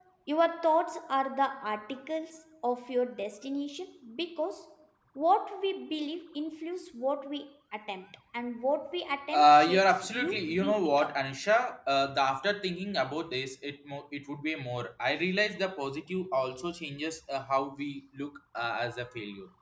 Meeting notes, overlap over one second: present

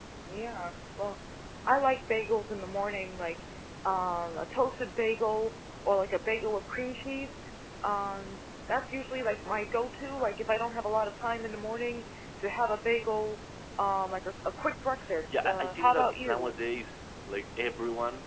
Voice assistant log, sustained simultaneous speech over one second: present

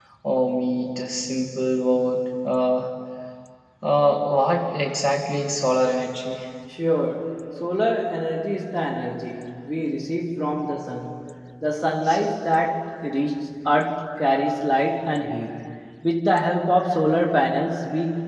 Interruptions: none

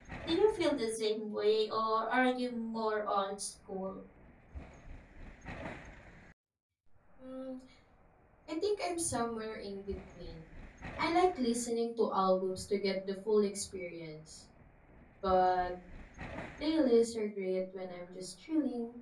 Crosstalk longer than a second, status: none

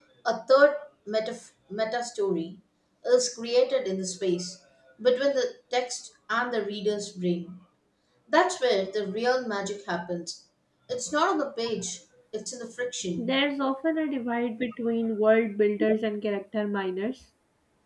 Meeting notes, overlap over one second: none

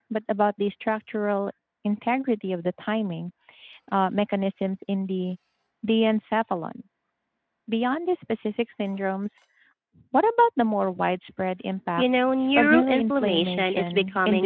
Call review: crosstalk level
present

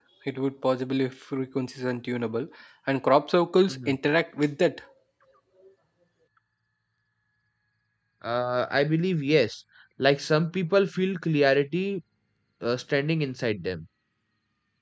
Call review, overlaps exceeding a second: none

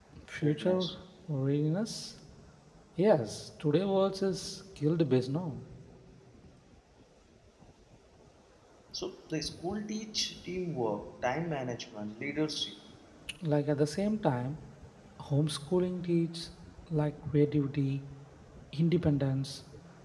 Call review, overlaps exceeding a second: none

